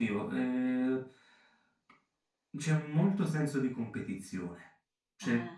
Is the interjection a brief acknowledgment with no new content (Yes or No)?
Yes